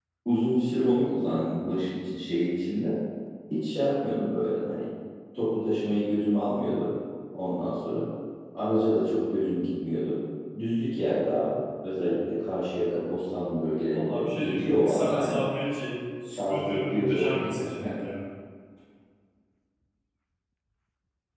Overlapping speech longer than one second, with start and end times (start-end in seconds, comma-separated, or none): 13.9-15.4, 16.3-17.9